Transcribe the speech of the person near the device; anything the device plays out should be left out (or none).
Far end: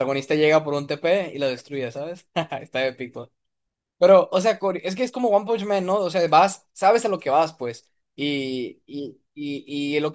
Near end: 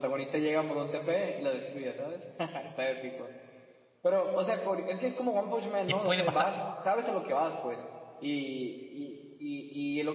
Que puede pasar,